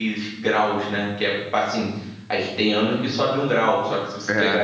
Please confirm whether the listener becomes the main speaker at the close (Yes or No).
No